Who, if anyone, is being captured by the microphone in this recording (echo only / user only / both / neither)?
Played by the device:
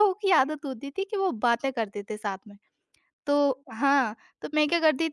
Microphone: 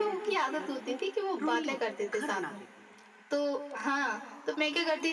both